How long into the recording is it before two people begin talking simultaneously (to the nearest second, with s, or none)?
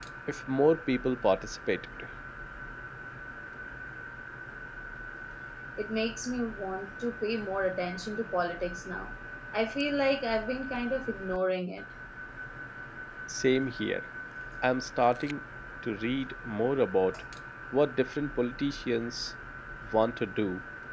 none